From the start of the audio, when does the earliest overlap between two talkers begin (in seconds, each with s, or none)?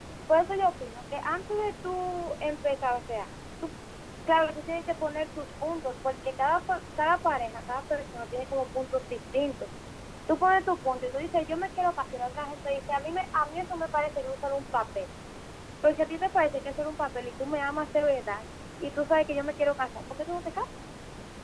none